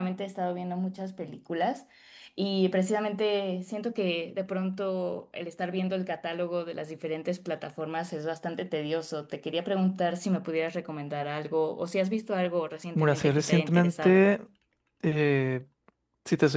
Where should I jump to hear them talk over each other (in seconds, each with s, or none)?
12.9 s